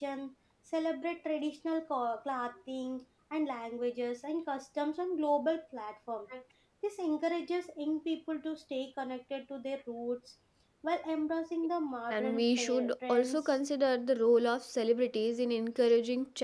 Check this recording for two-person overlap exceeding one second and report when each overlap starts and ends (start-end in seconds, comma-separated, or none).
12.1-13.6